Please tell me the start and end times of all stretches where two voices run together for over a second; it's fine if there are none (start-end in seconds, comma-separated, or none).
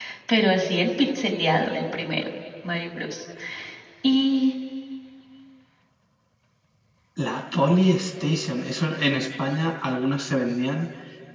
none